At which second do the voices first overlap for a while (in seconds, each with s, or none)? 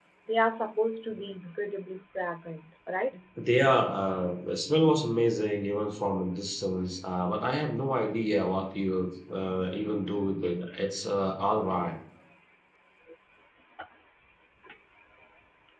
none